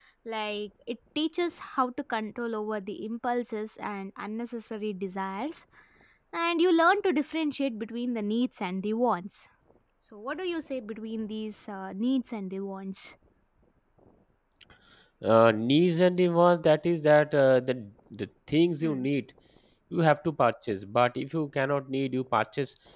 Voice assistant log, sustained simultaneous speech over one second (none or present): none